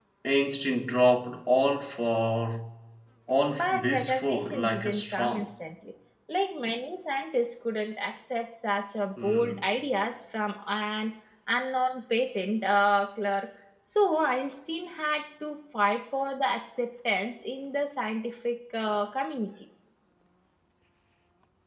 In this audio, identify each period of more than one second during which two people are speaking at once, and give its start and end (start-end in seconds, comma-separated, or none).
3.5-5.5